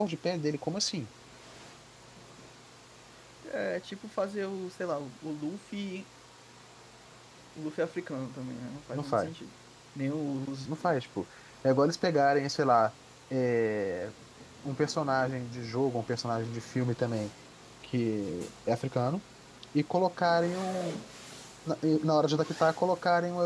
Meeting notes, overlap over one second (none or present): none